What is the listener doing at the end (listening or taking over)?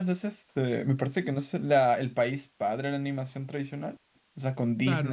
taking over